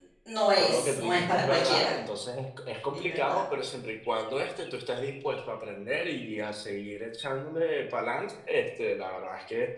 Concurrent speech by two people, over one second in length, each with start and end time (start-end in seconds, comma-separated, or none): 0.6-1.9